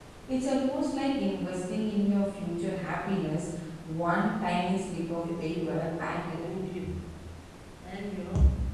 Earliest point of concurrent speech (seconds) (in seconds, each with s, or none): 5.0 s